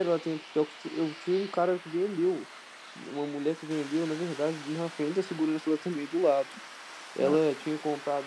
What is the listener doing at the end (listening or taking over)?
listening